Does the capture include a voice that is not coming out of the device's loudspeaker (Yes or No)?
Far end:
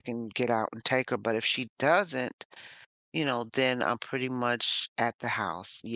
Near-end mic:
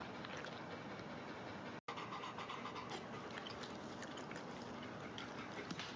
No